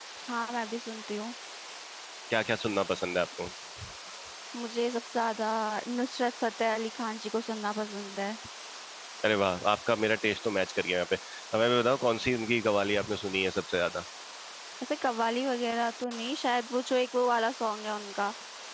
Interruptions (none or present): none